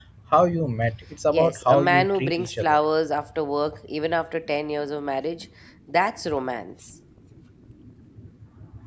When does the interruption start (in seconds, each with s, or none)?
1.3 s